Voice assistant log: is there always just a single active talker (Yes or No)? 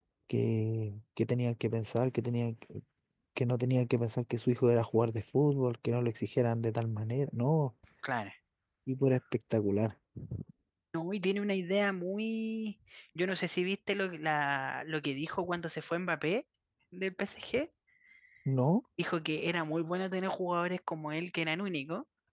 Yes